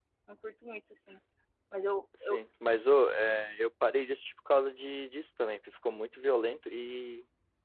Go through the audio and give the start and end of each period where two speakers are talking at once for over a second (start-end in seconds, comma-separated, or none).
none